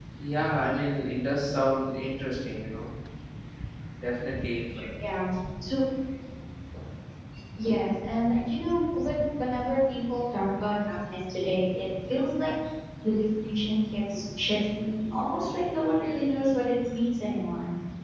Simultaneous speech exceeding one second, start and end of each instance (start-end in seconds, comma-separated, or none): none